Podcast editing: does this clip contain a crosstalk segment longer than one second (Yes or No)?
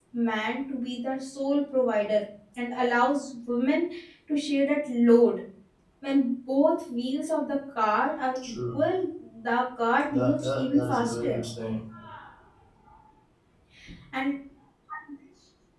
Yes